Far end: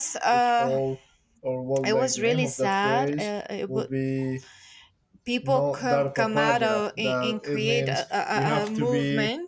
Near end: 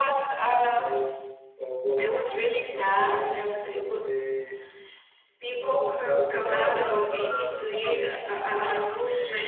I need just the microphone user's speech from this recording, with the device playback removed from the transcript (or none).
Yeah, the, that's the one.